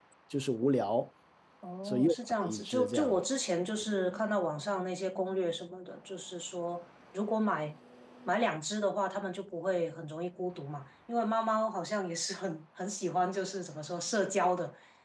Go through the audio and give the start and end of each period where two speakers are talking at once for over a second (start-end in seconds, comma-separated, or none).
1.9-3.2